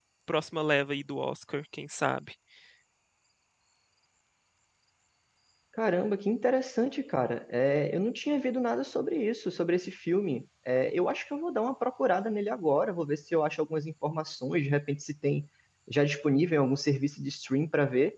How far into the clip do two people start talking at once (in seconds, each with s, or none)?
none